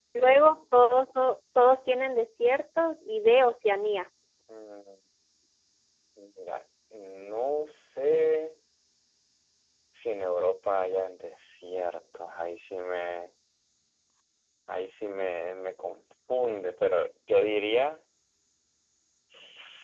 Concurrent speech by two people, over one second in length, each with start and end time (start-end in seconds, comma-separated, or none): none